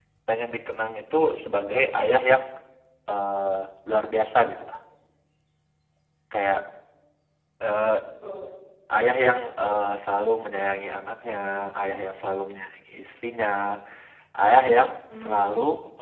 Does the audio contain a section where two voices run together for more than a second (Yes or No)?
No